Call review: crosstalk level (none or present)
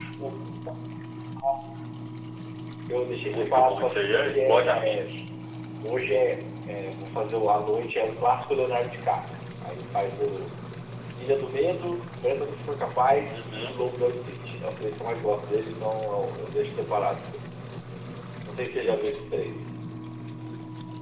present